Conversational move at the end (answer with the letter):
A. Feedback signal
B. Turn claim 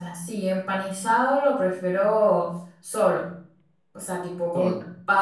A